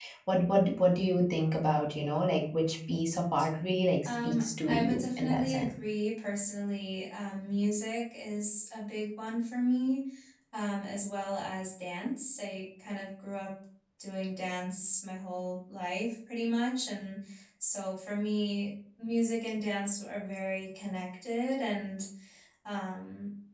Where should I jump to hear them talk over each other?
4.0 s

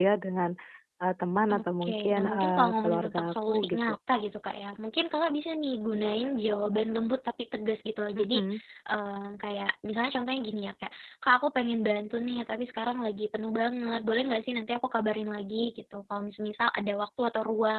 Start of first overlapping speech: 1.5 s

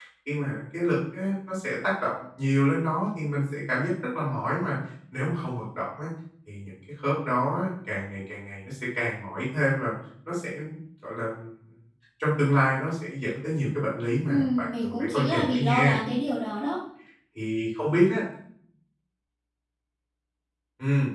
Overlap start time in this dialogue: 14.3 s

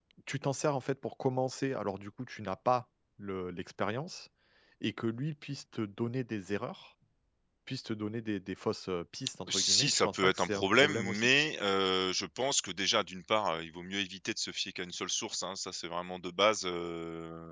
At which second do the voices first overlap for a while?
9.5 s

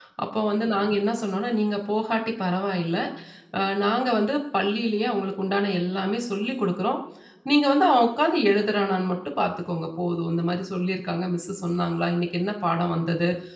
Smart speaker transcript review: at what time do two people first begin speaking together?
none

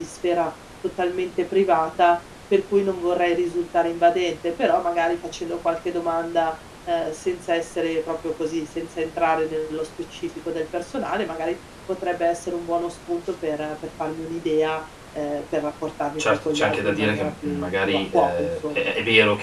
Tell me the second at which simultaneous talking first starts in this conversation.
16.2 s

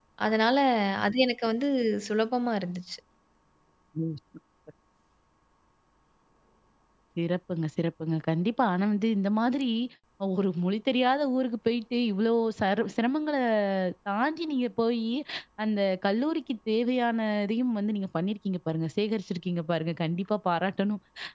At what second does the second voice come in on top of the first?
none

